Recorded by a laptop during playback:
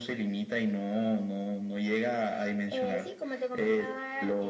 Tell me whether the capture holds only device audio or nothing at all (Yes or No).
Yes